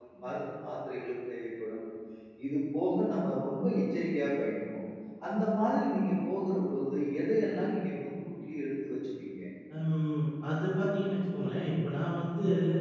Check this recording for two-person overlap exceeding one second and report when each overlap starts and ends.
none

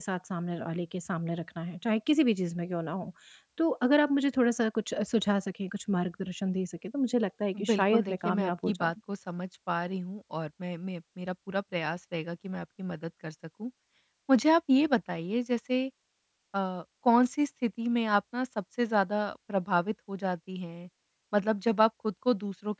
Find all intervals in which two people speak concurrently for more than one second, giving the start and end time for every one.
7.7-8.9

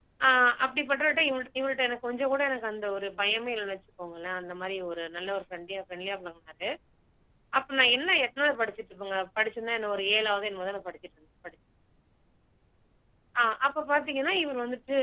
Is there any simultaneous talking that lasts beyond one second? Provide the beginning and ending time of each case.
none

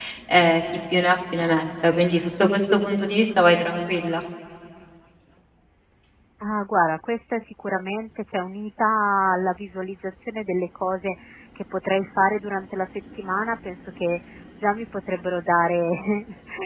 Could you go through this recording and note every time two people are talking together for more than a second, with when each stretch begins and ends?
none

